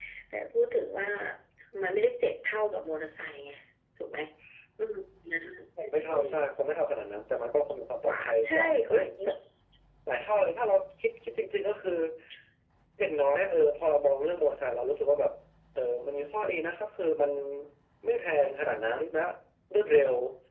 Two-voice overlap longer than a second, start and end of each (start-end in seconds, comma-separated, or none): 8.0-9.3